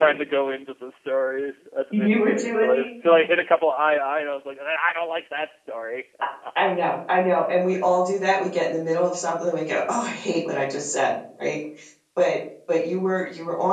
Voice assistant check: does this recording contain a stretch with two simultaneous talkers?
Yes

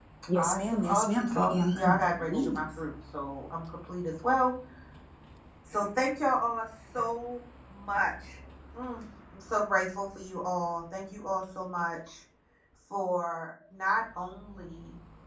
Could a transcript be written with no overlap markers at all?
No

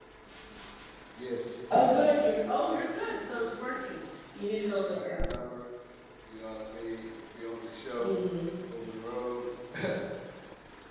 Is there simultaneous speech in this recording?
Yes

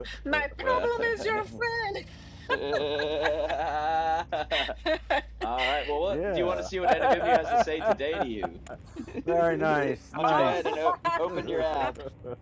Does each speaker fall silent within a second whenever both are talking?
No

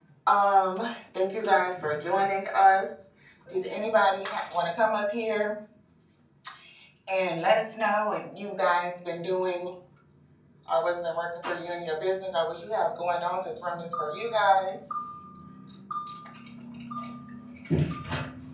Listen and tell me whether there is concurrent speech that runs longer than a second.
No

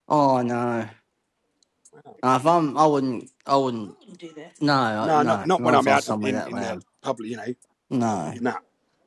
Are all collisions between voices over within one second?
No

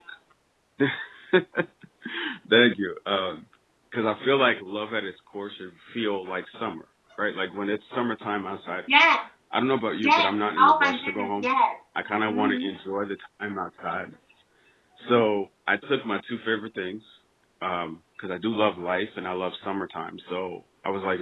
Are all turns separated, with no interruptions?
No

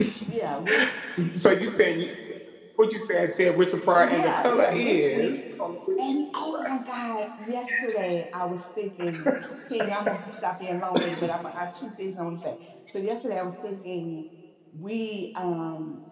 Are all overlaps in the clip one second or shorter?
No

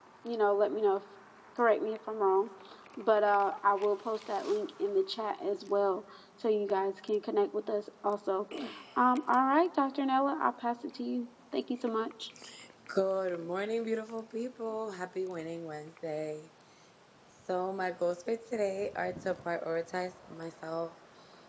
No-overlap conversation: Yes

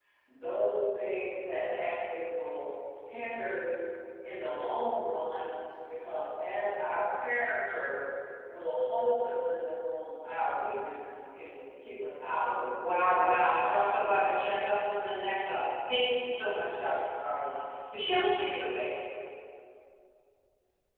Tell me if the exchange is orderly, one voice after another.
No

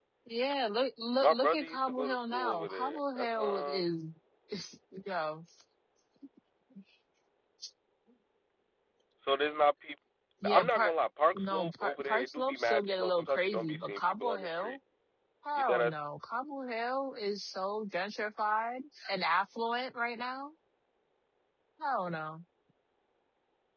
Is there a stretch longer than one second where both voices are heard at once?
Yes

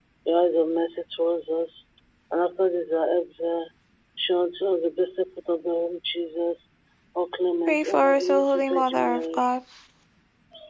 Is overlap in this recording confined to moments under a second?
No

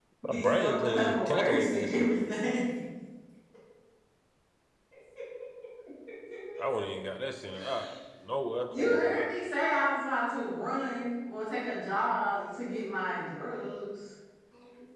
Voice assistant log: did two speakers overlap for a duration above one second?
Yes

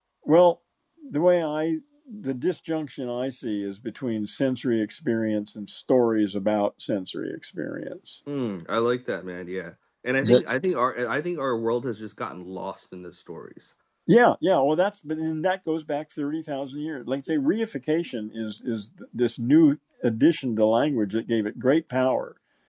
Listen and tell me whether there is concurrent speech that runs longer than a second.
No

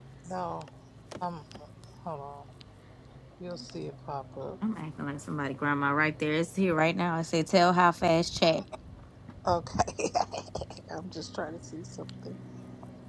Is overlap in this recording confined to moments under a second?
Yes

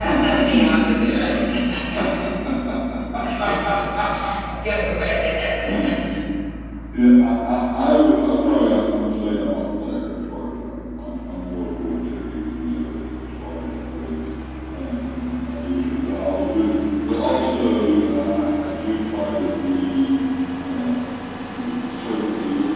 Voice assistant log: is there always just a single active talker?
No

